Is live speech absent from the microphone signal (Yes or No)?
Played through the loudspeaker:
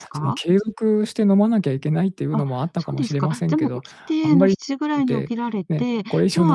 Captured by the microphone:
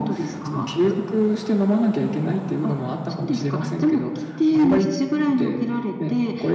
Yes